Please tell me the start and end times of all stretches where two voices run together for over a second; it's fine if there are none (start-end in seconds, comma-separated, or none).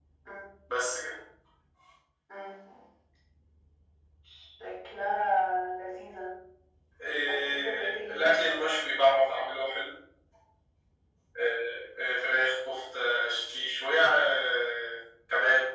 7.3-8.7